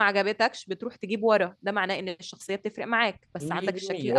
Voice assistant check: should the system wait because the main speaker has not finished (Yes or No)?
No